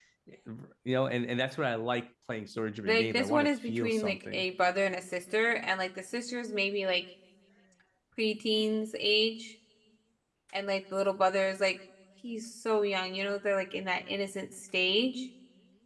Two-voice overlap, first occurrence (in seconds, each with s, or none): 2.8 s